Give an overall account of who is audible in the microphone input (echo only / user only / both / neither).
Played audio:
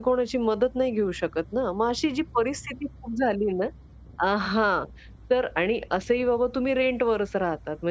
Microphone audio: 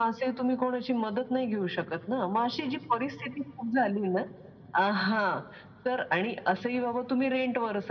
echo only